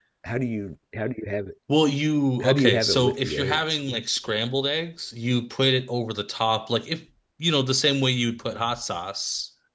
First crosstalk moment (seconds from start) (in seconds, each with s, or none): 2.4 s